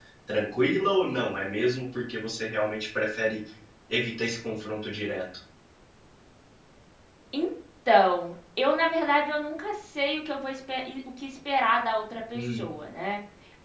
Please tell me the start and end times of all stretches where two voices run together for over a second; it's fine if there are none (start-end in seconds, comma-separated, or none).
none